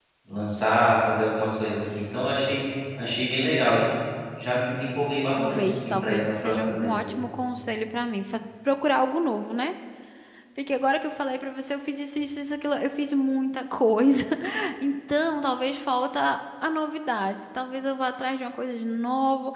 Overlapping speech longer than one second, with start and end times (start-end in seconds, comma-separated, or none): 5.4-7.0